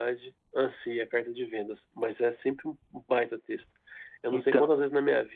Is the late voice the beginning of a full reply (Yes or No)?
No